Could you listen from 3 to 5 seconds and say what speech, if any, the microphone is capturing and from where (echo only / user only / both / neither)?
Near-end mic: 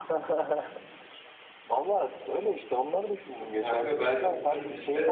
both